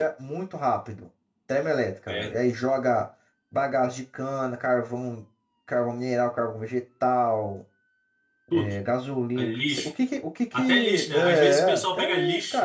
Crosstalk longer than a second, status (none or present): present